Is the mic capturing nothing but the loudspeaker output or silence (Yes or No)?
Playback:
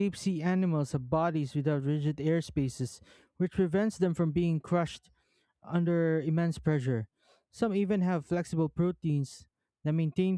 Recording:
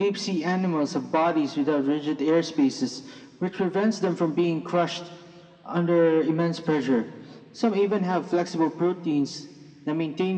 Yes